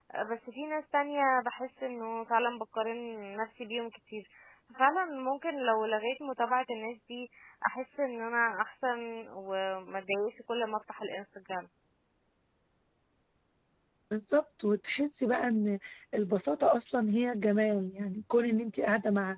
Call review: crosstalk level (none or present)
none